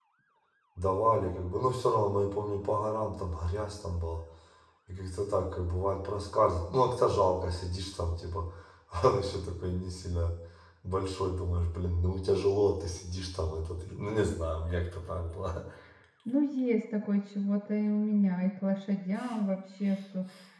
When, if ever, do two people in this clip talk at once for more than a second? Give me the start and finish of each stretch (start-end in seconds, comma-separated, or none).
none